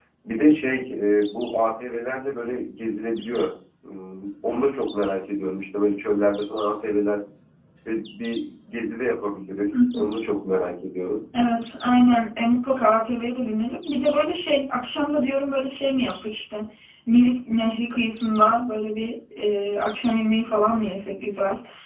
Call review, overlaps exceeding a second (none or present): none